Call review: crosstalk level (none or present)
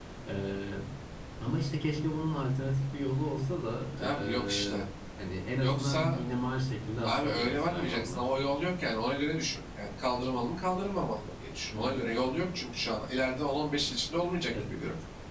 present